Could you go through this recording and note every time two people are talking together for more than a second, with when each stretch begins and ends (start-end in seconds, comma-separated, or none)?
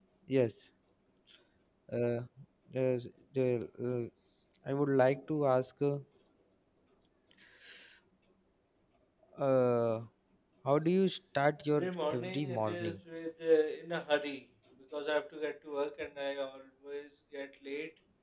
11.7-13.0